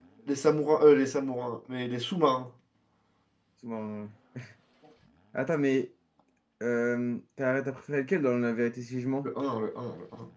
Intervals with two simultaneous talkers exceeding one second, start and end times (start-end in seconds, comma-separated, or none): none